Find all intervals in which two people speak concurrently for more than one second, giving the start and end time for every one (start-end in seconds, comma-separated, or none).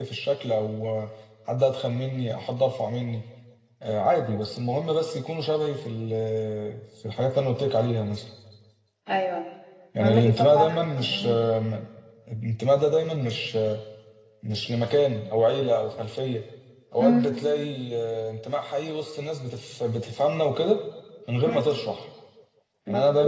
10.0-11.4